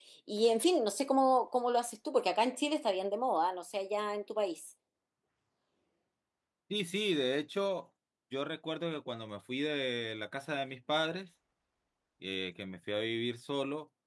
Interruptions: none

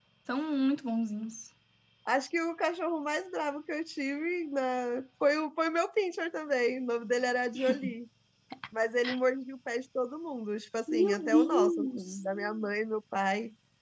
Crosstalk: present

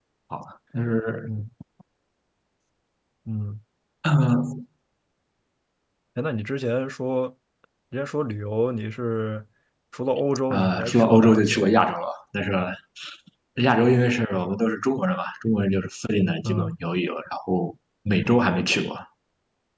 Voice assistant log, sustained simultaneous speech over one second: present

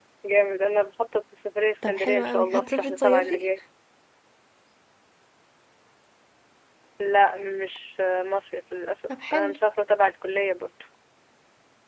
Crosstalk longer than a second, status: present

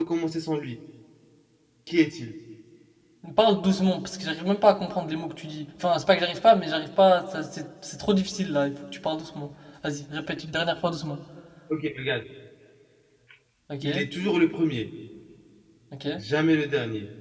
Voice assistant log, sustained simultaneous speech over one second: none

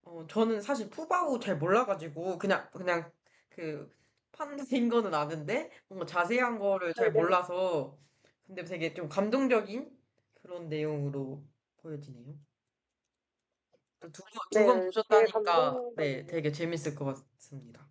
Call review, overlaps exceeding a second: present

